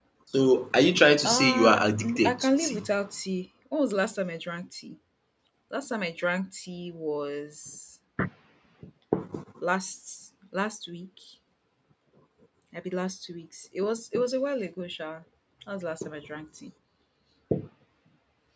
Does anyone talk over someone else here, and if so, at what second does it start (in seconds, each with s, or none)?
1.2 s